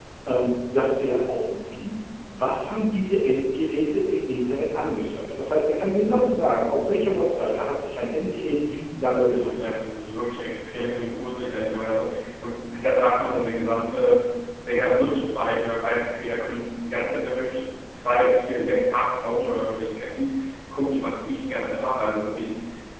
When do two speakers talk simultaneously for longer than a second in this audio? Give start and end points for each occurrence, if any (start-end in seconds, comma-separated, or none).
none